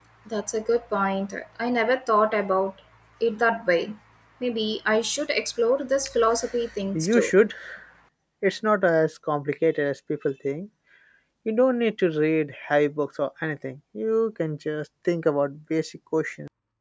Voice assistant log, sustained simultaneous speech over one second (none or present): none